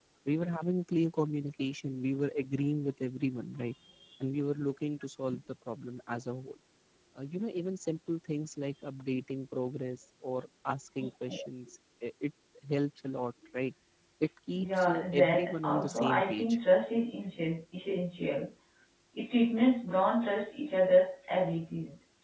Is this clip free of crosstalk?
No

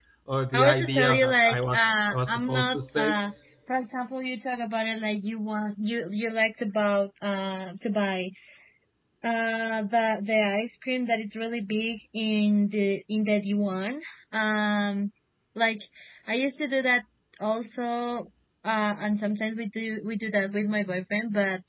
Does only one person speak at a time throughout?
No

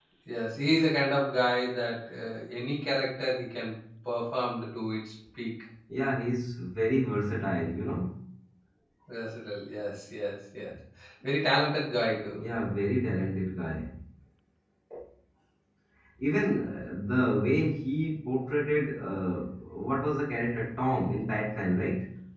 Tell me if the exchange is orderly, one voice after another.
Yes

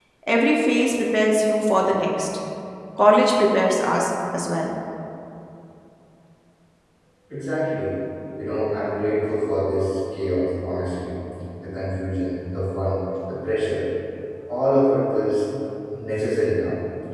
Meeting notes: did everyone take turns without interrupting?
Yes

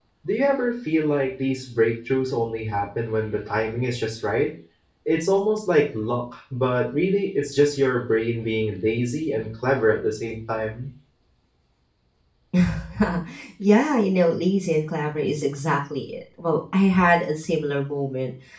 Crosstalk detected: No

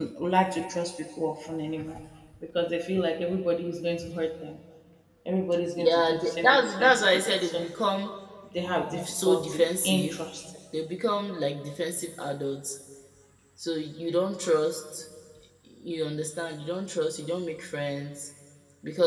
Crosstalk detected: Yes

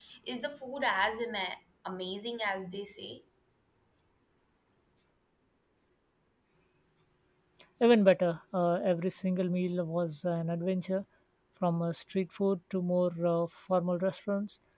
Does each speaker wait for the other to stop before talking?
Yes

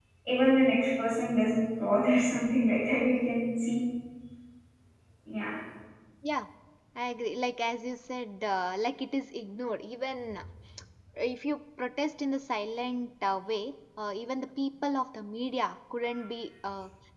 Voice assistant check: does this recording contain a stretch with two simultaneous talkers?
No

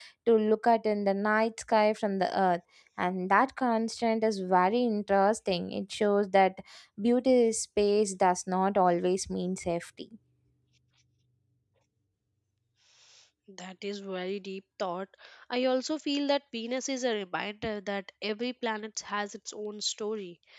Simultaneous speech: No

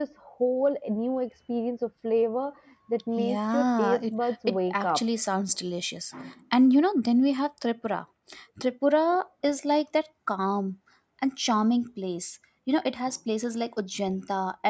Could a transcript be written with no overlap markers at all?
No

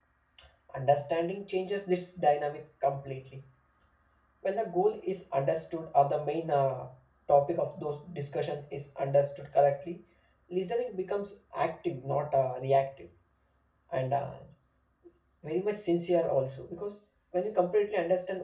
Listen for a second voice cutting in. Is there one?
No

